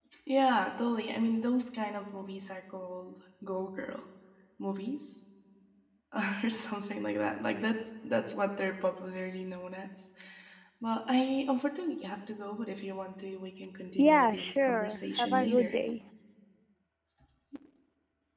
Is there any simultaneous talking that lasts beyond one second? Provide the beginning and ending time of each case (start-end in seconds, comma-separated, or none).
14.0-15.8